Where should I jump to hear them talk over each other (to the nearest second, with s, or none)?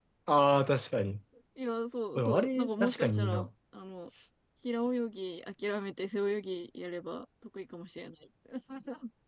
2 s